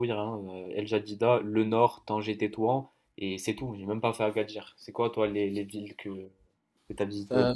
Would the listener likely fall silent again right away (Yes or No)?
No